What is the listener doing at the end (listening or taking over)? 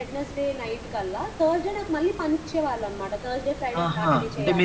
taking over